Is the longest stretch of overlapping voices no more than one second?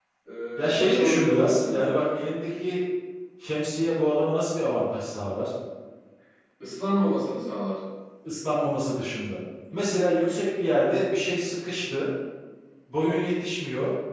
No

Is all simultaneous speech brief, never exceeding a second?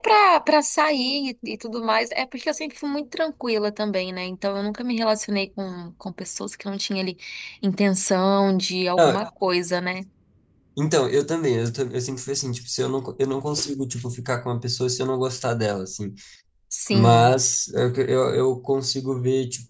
Yes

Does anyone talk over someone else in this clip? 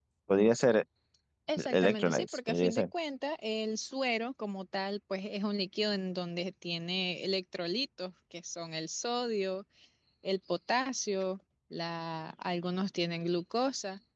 Yes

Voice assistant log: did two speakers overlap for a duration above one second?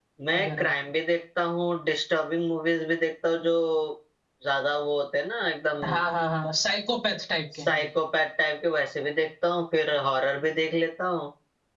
No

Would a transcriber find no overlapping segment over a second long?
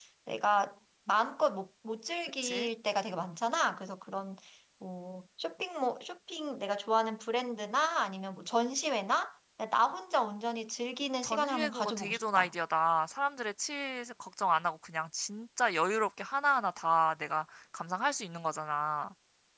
No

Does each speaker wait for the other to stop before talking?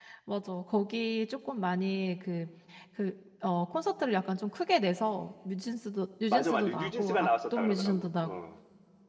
No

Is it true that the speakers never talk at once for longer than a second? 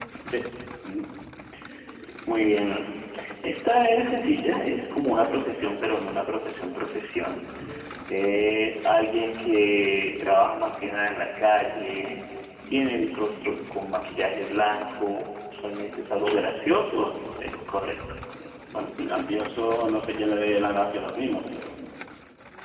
Yes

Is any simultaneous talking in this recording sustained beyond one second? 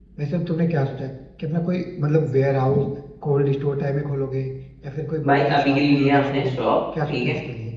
Yes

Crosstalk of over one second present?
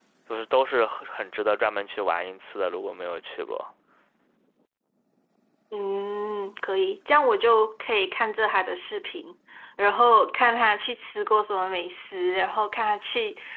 No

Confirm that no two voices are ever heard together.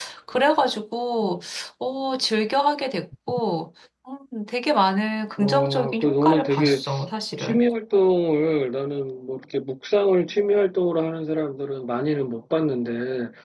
No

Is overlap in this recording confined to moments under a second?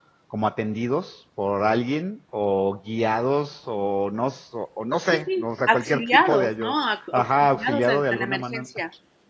No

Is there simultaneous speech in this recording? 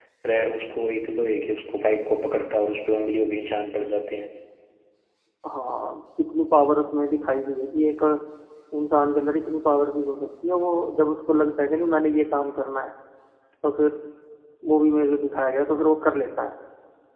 No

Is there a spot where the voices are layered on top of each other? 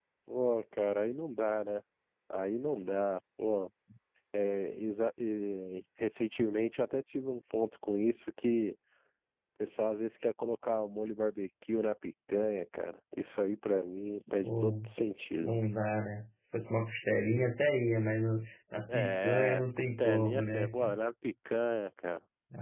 Yes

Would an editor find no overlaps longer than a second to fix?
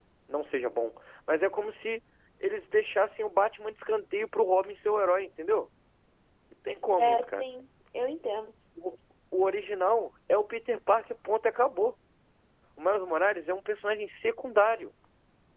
Yes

